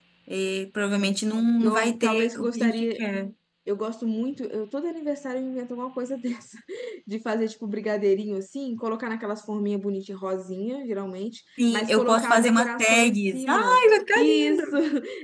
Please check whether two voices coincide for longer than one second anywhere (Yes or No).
Yes